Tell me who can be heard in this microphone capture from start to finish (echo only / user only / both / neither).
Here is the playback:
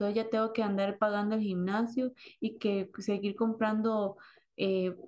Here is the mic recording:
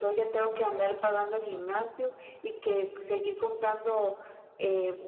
echo only